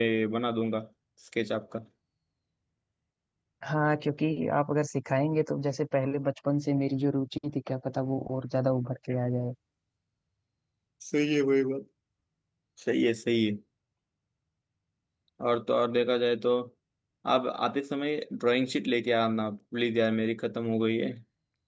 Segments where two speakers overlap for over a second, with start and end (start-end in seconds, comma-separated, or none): none